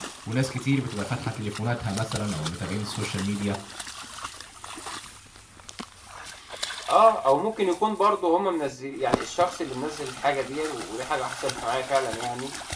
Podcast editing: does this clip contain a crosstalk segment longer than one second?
No

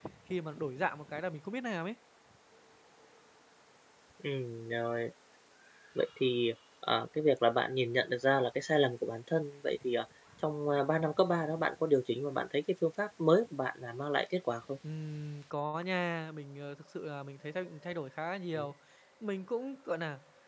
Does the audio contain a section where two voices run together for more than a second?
No

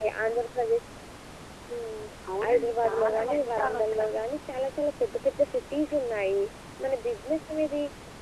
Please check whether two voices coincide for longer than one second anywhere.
Yes, from 2.5 s

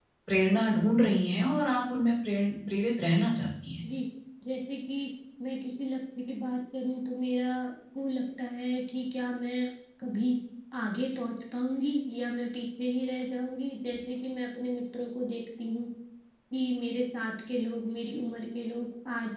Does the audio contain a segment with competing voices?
No

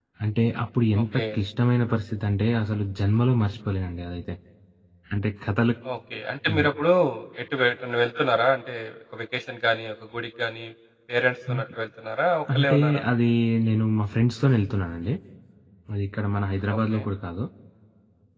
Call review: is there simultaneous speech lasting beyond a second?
No

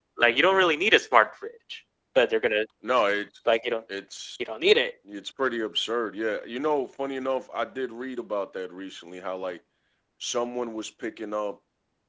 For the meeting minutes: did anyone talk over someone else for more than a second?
No

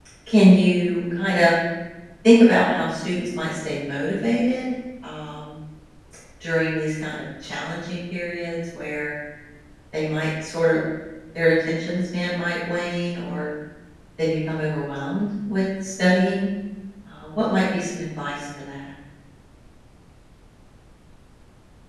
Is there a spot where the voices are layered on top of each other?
No

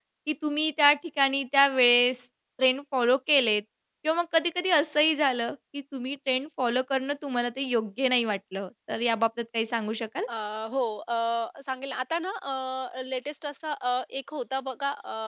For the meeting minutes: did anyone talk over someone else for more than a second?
No

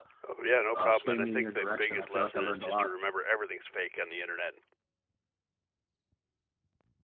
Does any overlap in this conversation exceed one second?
Yes, from 0.7 s

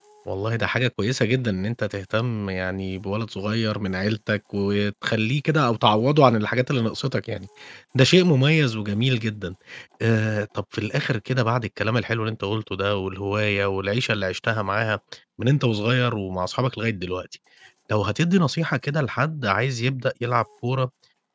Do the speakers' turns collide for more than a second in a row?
No

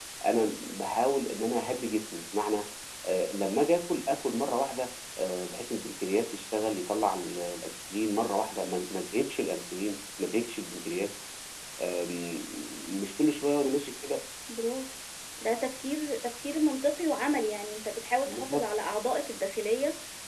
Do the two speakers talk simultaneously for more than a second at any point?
No

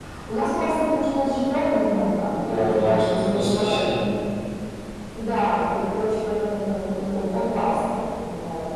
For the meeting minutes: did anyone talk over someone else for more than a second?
Yes, from 2.4 s

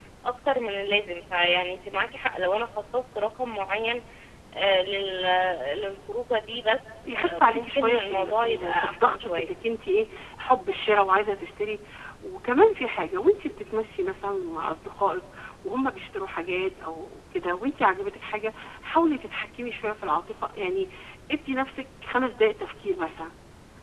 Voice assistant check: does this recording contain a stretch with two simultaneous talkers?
Yes, from 7.0 s

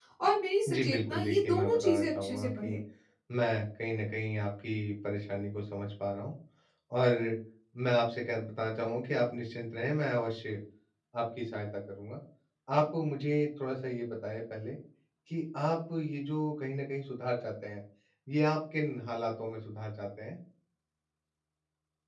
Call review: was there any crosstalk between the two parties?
Yes, from 0.7 s

